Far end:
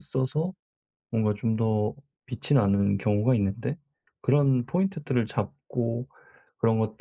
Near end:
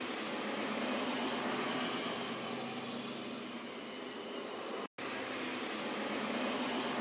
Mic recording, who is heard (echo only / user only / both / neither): neither